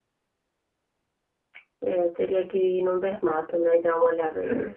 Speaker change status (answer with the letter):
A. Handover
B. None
A